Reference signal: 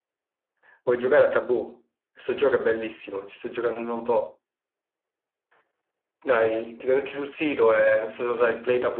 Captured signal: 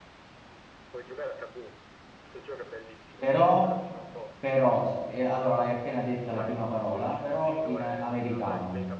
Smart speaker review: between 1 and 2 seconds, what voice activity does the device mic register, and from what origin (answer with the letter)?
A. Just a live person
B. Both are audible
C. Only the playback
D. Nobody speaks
C